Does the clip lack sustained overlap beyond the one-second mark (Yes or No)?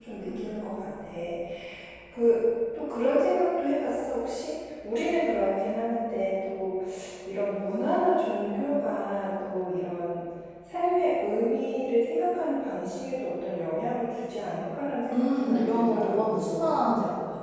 No